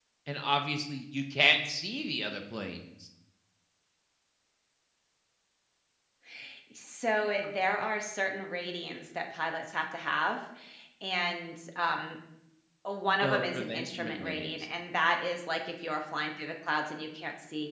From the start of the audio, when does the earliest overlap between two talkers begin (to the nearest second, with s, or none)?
13 s